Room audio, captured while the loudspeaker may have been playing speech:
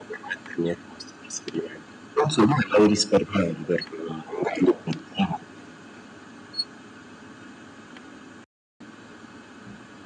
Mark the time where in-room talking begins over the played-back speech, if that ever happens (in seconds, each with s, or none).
none